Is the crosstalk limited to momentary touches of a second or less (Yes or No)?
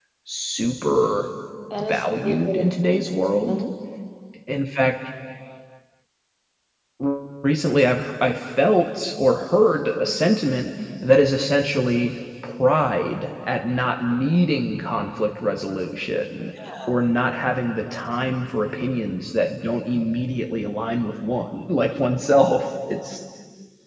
No